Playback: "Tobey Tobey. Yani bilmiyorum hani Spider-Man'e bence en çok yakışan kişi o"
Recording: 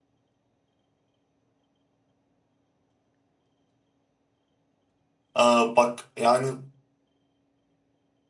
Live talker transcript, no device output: Aa, bak yani

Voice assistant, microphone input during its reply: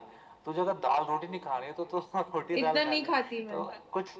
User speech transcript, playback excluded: इतना नहीं खाती मैं

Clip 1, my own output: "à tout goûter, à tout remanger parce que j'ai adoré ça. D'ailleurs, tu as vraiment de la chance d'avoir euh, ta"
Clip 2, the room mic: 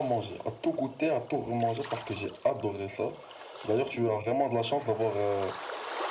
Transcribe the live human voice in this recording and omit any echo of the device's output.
none

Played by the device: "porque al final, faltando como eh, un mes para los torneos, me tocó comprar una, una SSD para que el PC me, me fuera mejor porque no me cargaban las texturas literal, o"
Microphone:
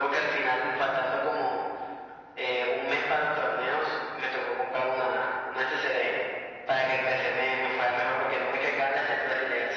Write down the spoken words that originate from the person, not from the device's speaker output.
none

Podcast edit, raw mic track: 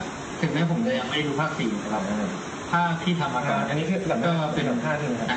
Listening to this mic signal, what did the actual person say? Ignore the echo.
none

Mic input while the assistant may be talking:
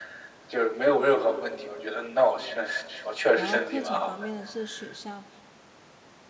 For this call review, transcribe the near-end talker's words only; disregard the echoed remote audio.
然后课程方面呢，是学校

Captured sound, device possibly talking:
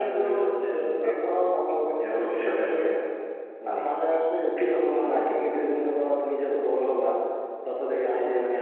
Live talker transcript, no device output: none

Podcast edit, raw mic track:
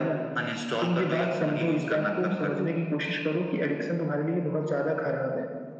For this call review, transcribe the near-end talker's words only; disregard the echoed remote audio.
none

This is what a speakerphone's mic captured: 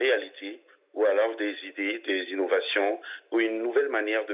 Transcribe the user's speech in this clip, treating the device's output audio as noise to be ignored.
none

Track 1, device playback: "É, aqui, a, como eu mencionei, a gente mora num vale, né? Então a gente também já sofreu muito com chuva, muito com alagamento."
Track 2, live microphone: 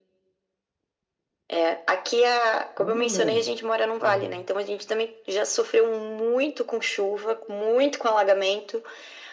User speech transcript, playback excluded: É um problema, um problema.

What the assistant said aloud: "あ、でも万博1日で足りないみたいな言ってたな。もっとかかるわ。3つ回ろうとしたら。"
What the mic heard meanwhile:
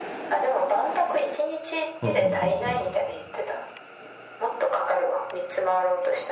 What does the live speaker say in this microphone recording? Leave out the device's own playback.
はんはんはんはん。

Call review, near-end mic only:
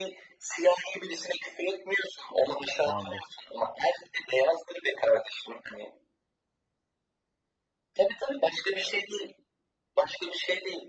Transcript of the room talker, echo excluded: şu anda.

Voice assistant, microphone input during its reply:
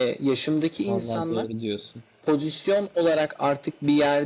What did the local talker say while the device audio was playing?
Vallahi doğru diyorsun.

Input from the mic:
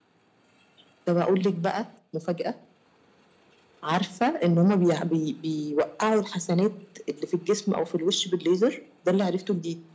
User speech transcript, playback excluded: none

